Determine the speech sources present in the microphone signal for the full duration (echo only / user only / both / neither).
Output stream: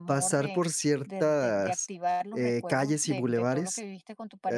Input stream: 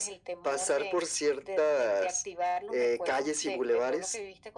echo only